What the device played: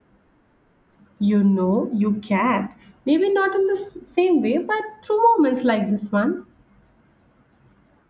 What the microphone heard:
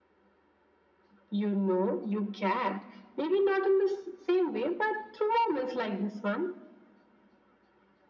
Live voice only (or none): none